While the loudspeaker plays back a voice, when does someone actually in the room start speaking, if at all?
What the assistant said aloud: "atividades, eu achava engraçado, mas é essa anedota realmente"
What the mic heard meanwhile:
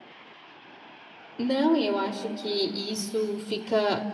1.4 s

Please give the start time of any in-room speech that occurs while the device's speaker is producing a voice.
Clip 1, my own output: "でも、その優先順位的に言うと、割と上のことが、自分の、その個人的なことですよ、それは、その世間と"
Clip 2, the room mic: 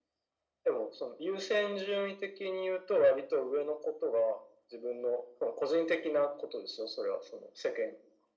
none

